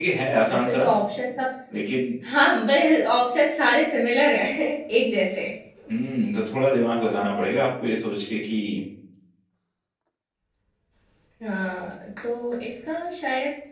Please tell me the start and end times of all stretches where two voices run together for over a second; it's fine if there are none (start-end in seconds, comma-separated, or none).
none